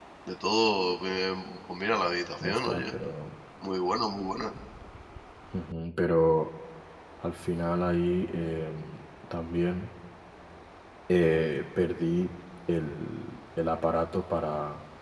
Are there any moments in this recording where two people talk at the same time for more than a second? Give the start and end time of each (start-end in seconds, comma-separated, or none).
none